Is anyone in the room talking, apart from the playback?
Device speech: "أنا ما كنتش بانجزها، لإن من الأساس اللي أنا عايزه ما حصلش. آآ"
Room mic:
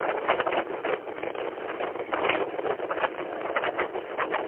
No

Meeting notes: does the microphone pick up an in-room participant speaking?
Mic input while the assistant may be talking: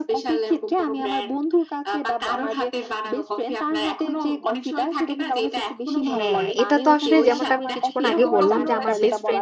Yes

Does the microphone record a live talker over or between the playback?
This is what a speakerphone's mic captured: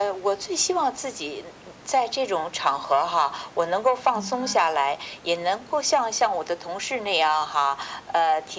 Yes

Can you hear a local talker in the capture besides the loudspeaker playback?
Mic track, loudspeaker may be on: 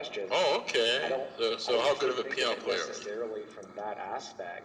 No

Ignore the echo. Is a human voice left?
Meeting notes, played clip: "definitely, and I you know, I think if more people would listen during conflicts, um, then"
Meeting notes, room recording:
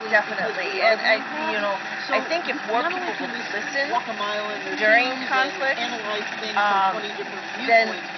Yes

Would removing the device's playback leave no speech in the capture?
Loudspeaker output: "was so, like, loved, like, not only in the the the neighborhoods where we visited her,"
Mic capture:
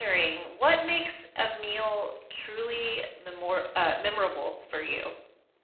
No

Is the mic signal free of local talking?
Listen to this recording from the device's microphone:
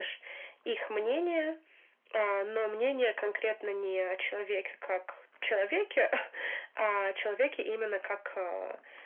Yes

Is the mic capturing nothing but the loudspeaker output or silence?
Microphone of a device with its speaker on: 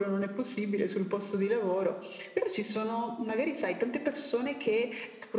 Yes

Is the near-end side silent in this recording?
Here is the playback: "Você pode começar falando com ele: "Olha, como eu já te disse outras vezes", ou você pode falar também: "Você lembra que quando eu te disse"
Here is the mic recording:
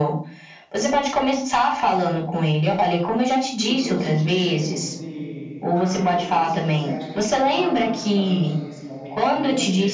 No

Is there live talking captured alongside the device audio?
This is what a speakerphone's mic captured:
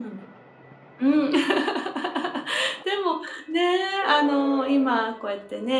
No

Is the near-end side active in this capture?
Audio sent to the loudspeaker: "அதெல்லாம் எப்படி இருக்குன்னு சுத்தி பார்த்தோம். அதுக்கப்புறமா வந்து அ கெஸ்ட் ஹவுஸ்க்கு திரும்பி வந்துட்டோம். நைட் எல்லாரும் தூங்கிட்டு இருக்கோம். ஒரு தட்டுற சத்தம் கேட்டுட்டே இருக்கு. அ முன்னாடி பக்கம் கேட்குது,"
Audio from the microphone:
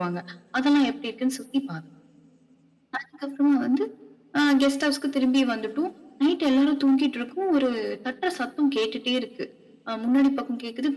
No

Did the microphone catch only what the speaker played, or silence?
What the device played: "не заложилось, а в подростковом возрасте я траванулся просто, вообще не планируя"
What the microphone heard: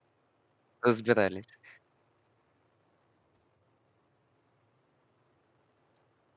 No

